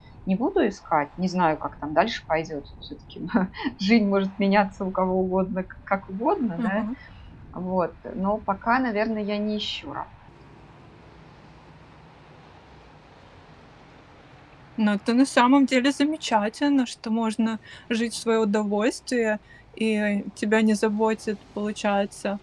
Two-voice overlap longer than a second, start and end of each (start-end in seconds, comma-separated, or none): none